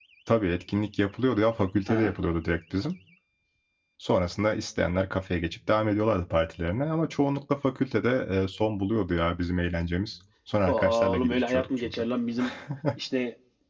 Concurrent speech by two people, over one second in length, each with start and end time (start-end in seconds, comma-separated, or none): 10.7-12.0